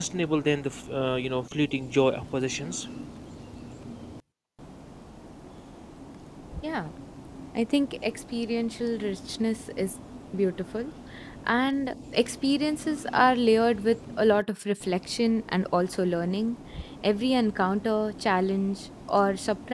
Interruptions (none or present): none